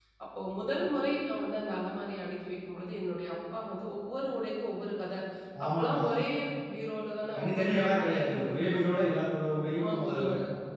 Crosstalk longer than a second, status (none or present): present